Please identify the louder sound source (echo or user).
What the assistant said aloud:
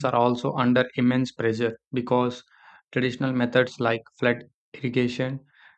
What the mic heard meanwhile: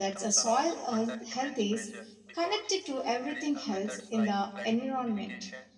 user